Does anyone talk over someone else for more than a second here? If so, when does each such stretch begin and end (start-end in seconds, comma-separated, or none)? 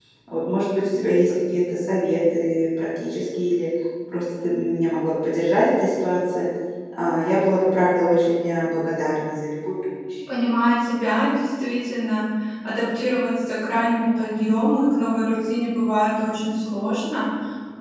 none